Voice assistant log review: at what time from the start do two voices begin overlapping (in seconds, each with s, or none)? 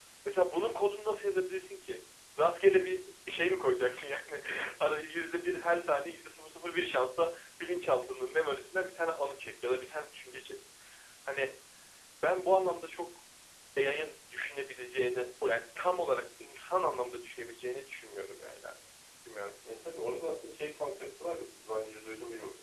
none